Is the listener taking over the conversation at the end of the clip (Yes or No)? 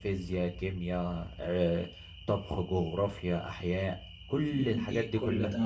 Yes